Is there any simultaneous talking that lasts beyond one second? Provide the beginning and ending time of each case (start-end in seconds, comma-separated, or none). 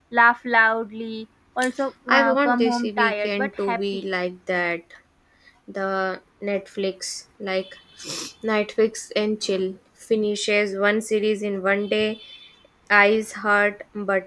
2.1-4.0